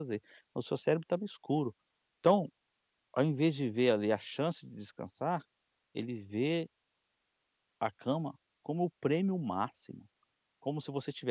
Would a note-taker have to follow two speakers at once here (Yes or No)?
No